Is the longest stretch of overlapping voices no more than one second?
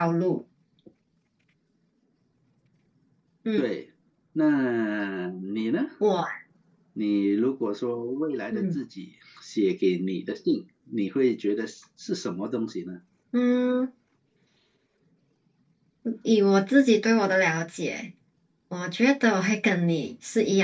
Yes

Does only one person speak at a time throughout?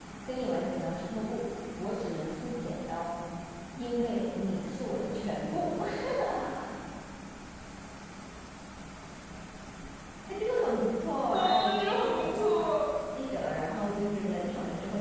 No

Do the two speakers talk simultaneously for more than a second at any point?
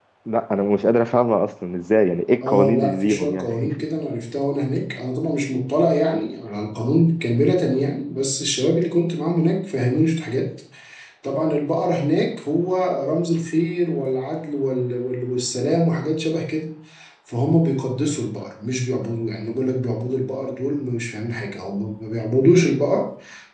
Yes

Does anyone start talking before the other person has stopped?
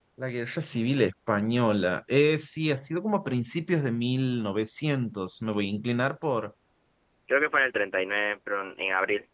No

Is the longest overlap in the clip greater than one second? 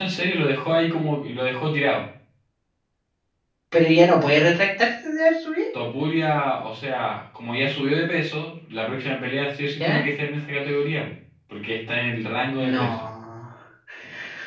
No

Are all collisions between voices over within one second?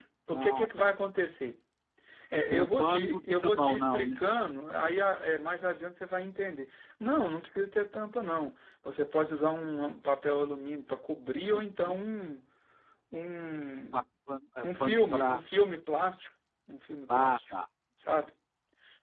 No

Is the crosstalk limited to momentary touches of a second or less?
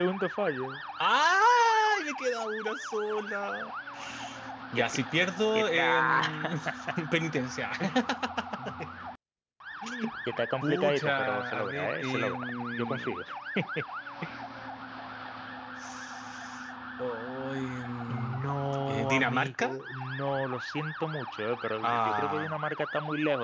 No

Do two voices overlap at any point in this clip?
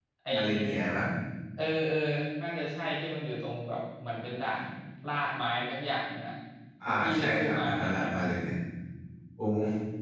Yes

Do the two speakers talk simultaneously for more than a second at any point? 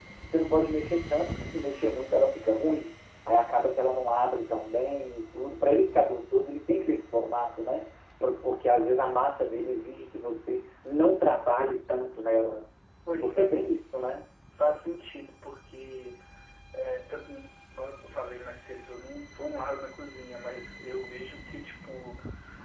No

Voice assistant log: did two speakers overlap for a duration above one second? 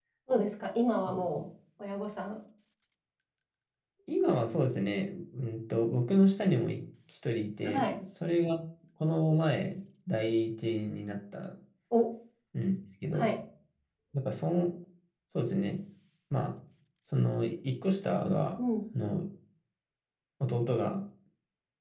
No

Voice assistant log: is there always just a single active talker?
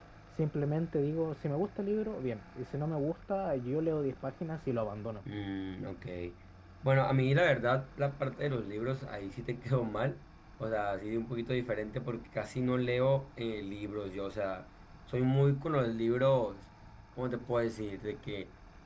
Yes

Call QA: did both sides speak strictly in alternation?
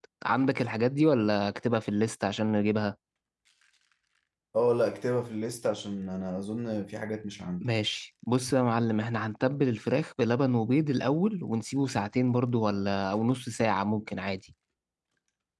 Yes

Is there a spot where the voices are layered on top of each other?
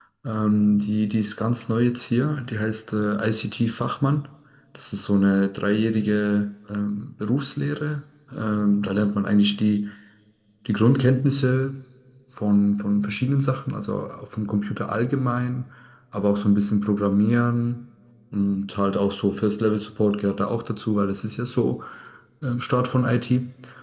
No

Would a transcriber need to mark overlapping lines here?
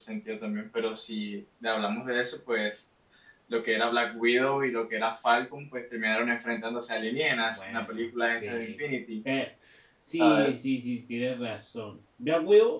Yes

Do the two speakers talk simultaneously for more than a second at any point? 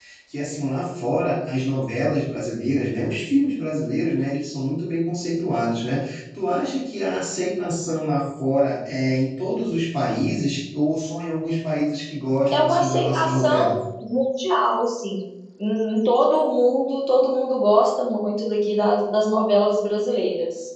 Yes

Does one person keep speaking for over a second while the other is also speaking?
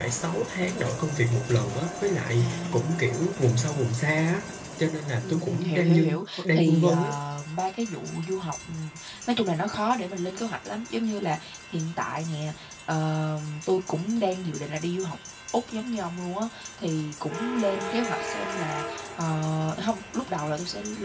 Yes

